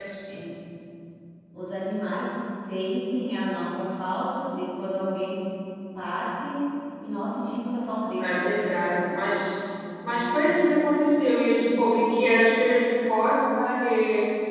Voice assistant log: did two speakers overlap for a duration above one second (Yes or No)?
Yes